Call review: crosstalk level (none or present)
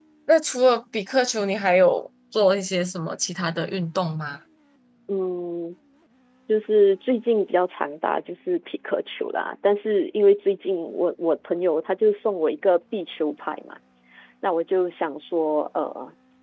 none